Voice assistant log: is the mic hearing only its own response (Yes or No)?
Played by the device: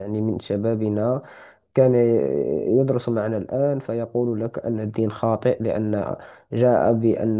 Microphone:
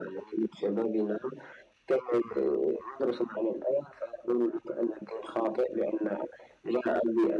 Yes